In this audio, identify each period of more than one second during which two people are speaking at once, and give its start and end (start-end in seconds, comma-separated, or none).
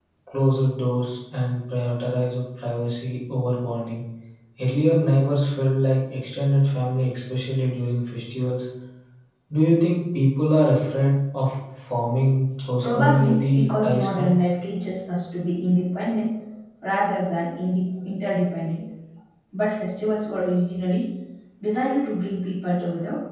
12.8-14.3